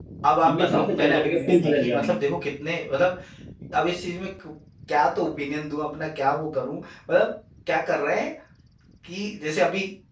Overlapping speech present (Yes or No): Yes